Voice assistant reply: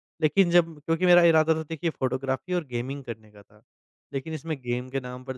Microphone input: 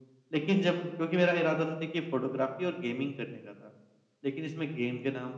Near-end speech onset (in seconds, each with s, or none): none